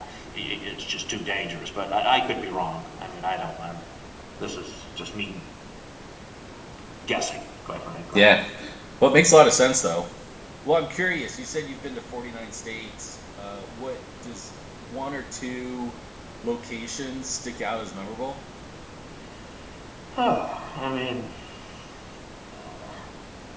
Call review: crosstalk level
none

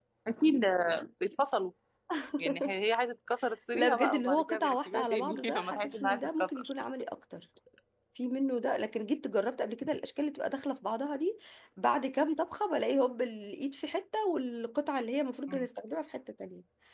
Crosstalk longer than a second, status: present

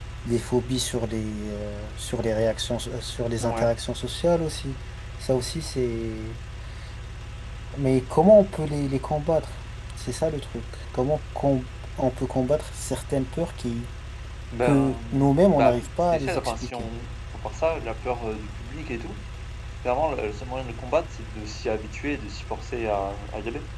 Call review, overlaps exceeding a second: present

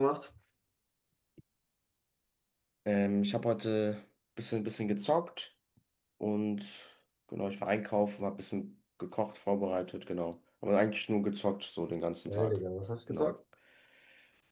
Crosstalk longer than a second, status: none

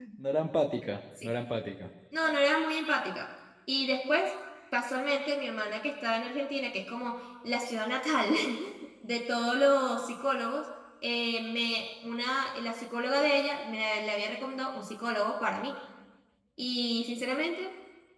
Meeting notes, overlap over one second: none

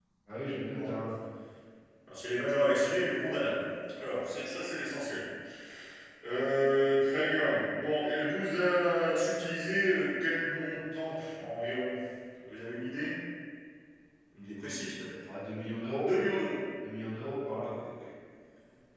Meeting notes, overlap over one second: none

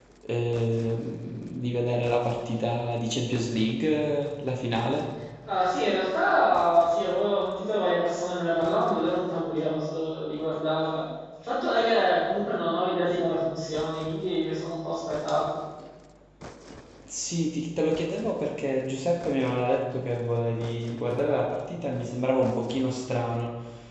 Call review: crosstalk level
none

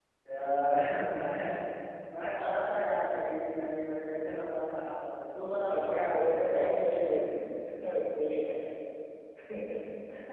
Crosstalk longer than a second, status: present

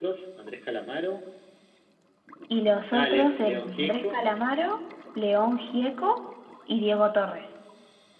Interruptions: present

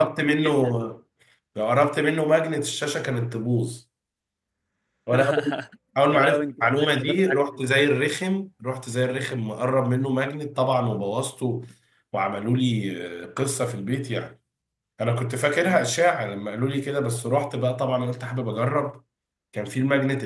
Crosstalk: present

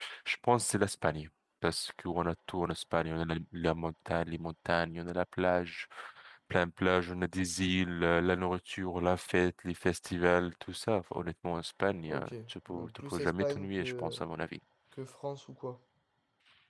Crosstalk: present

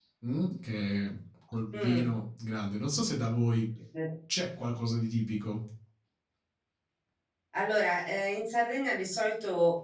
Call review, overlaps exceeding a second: none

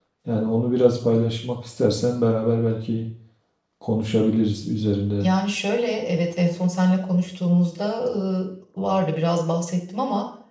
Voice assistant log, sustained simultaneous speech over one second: none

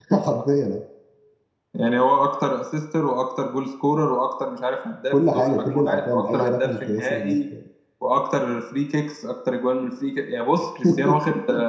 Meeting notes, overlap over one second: present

